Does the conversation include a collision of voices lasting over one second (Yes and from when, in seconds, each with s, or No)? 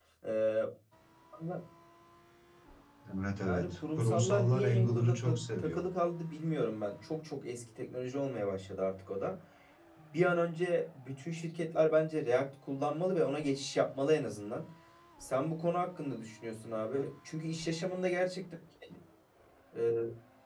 Yes, from 3.5 s